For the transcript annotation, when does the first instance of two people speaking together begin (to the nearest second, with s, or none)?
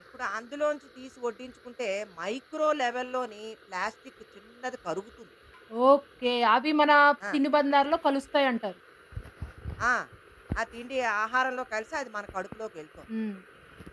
none